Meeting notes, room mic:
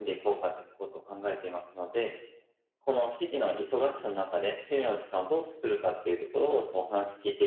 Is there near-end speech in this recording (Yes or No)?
No